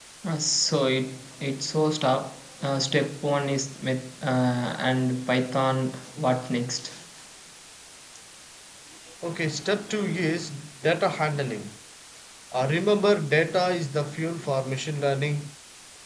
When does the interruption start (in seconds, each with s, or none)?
none